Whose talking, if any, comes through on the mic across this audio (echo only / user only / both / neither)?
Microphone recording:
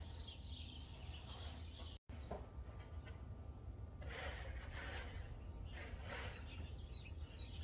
neither